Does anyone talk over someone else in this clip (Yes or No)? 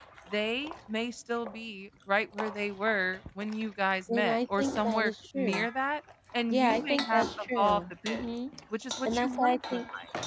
Yes